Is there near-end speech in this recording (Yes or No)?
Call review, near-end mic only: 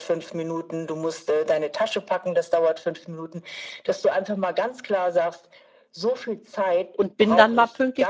Yes